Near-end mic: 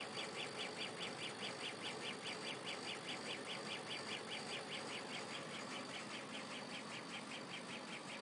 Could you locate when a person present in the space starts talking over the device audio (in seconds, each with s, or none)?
none